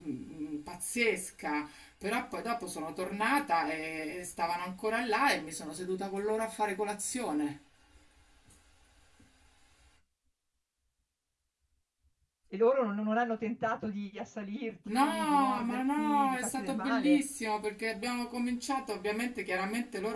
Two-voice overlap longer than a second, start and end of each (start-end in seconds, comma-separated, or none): 14.9-17.2